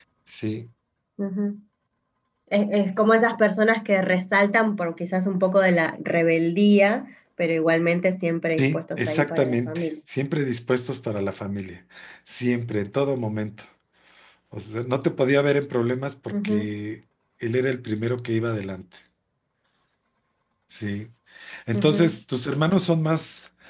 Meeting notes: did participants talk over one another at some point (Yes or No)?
Yes